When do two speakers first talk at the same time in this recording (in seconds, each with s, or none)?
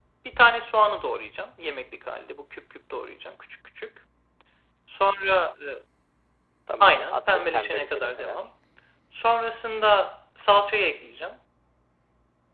6.8 s